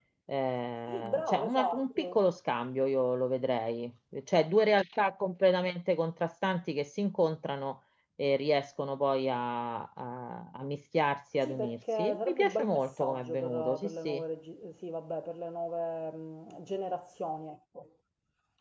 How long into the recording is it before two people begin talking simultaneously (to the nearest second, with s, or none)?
1 s